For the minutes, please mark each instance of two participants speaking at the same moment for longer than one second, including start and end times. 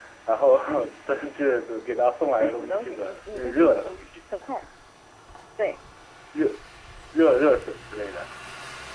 2.4-3.9

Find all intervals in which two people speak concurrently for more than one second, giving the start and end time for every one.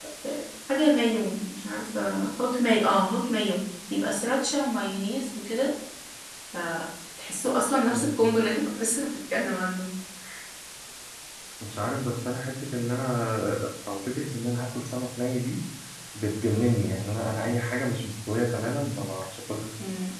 none

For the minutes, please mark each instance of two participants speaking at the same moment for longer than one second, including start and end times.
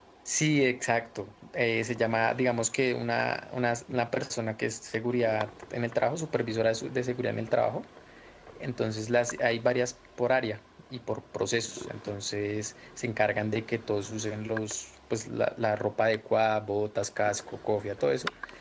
none

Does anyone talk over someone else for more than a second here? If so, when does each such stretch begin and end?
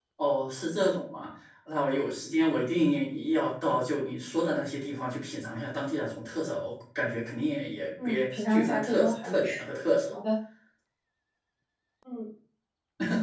8.0-9.6

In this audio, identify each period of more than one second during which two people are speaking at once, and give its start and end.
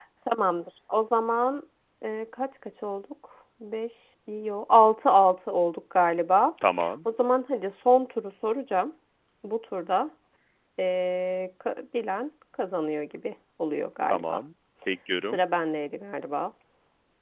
none

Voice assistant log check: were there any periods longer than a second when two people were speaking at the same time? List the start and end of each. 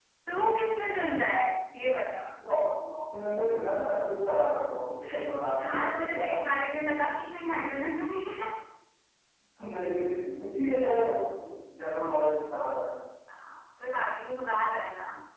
5.1-6.3

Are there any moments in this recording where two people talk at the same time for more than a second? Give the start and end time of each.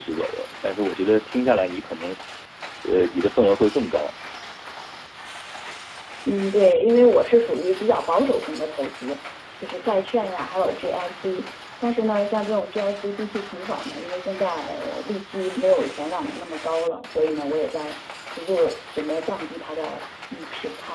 none

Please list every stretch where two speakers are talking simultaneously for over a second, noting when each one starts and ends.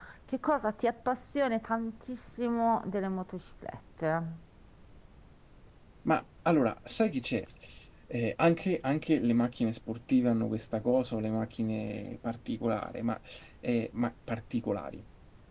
none

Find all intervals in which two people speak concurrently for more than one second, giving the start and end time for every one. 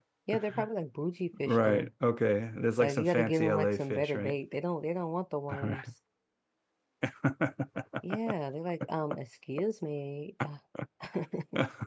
2.8-4.4

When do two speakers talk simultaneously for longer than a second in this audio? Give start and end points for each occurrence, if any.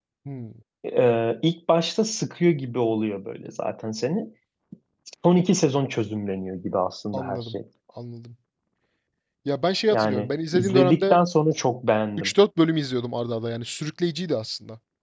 9.9-11.1

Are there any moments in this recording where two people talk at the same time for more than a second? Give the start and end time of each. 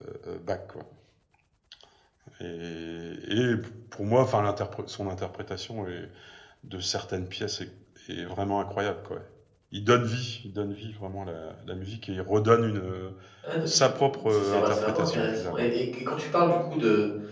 14.3-15.7

